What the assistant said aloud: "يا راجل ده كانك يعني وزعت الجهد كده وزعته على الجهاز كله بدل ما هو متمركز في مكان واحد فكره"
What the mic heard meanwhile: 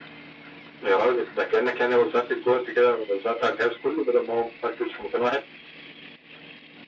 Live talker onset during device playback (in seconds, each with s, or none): none